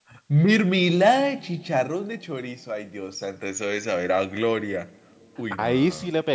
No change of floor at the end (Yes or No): No